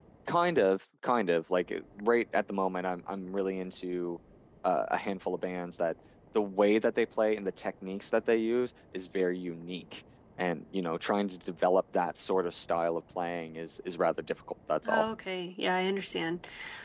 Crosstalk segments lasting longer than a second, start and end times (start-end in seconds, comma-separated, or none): none